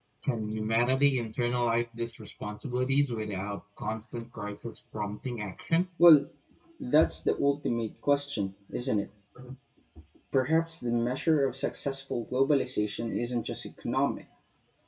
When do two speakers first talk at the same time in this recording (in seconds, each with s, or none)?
none